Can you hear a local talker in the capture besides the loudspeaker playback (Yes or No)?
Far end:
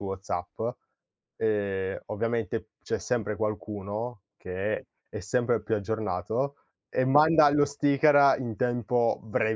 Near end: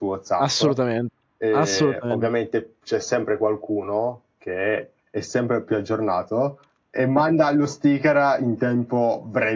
Yes